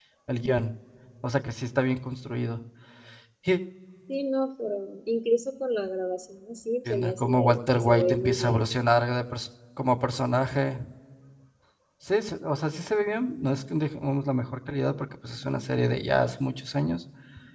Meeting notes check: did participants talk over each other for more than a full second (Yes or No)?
Yes